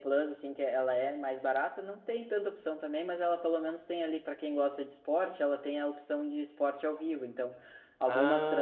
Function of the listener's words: listening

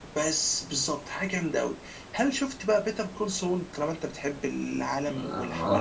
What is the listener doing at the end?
taking over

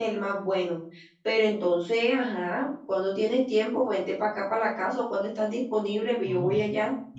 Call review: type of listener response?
taking over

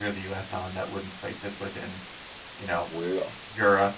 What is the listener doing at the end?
listening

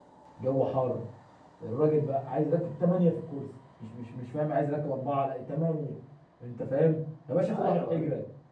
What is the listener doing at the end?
listening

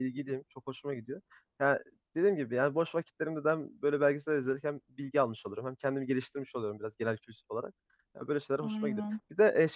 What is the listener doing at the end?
listening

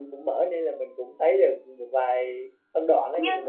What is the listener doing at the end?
taking over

